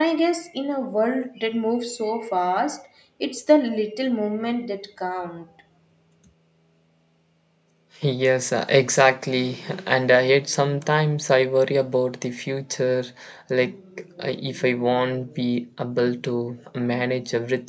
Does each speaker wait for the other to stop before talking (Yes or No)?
Yes